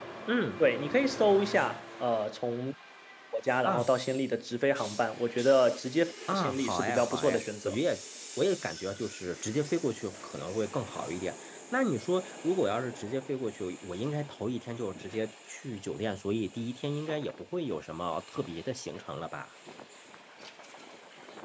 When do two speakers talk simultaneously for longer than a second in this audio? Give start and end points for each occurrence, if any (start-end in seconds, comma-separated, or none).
6.3-7.8